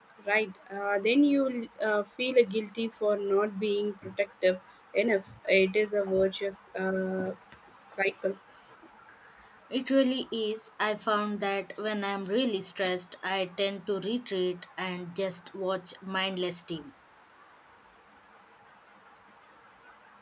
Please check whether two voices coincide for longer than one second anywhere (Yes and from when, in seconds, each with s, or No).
No